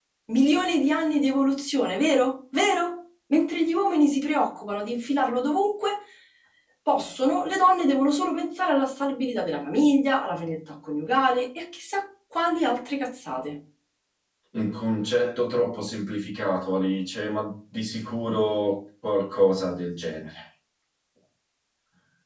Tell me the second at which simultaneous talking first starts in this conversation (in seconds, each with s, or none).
none